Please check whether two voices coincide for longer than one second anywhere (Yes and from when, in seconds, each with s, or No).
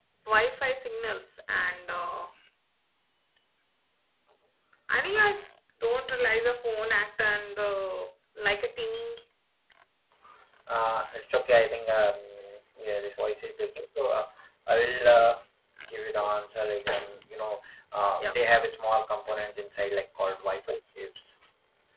No